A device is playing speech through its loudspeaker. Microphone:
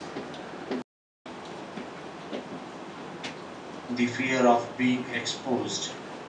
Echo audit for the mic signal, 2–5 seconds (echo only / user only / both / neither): user only